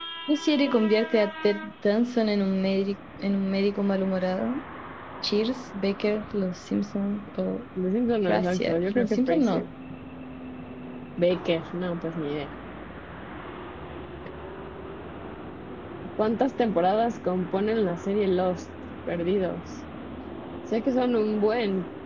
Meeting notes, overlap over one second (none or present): present